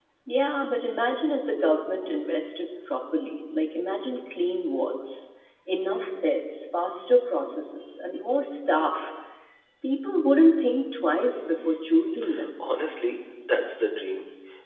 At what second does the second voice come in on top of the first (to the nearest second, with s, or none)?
none